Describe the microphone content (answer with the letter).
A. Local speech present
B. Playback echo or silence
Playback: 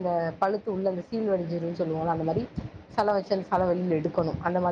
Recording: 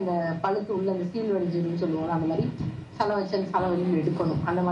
A